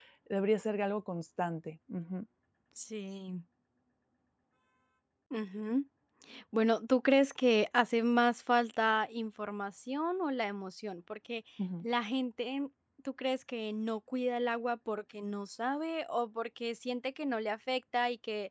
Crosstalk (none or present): none